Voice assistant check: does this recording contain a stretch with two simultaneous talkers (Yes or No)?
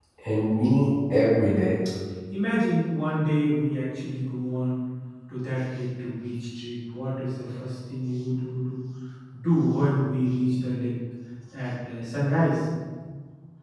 No